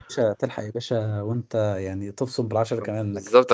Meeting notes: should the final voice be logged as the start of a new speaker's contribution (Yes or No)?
Yes